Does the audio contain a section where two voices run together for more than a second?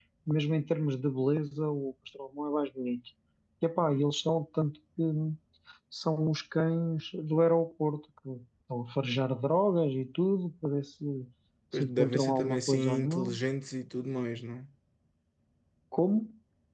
Yes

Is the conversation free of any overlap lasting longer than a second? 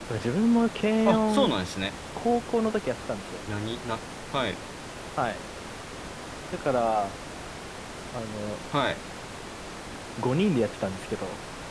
Yes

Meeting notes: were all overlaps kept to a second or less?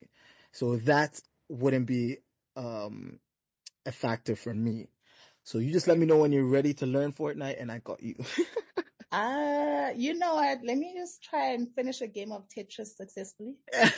Yes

